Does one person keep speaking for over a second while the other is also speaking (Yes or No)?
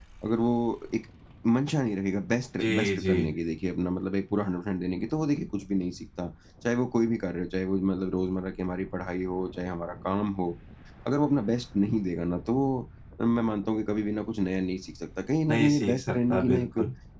Yes